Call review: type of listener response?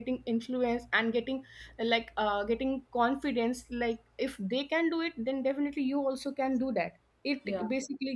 listening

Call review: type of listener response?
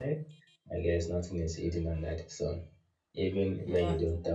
listening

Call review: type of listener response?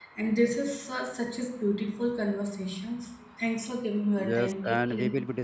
taking over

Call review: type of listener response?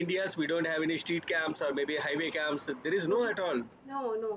taking over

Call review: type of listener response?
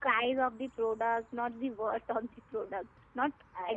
listening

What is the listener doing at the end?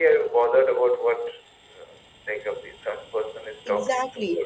taking over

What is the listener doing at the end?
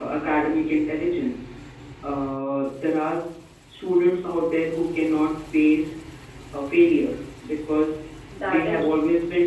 listening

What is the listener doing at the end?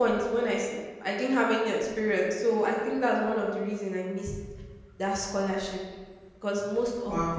listening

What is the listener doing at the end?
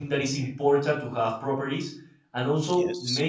listening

